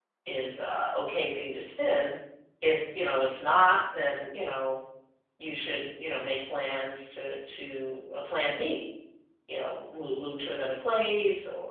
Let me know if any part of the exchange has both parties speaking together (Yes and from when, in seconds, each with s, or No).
No